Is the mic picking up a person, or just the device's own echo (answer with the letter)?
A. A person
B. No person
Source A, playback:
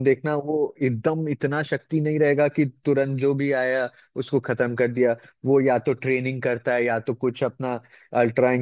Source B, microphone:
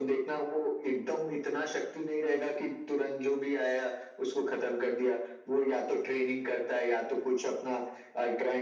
B